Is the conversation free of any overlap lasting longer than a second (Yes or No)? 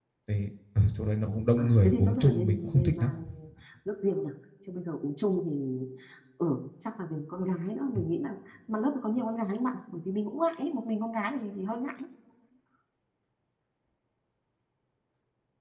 No